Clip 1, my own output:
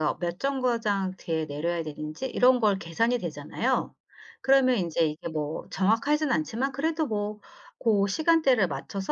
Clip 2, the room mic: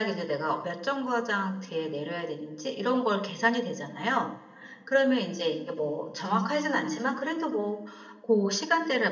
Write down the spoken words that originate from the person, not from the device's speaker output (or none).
none